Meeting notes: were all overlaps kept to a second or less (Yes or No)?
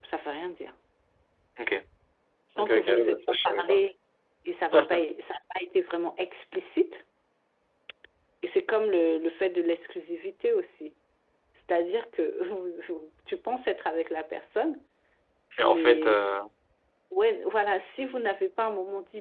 No